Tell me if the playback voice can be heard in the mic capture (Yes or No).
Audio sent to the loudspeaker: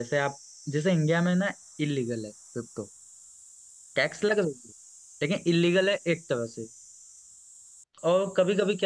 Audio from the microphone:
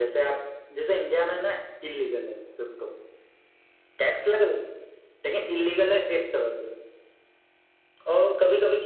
Yes